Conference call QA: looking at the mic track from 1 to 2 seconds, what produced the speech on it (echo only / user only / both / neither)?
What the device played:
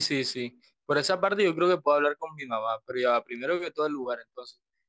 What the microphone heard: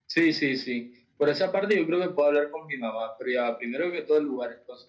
echo only